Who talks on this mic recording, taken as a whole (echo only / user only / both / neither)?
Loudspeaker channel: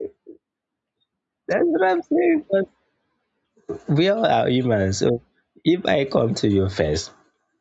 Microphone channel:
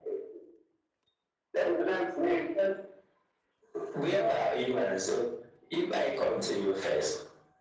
echo only